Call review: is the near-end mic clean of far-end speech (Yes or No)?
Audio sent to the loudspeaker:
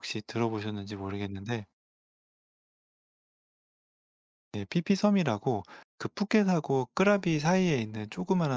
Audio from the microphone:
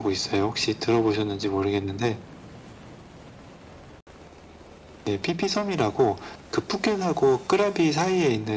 No